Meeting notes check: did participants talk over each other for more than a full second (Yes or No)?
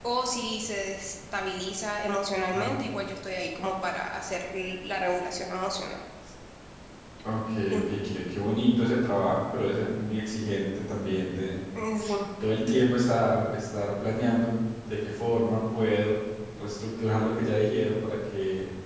No